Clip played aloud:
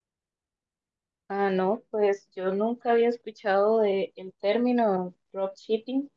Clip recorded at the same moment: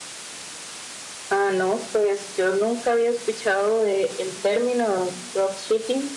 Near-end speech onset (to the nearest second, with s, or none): none